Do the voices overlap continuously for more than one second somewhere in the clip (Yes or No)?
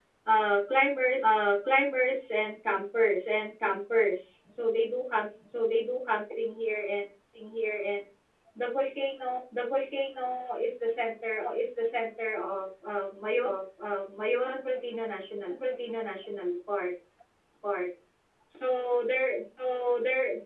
No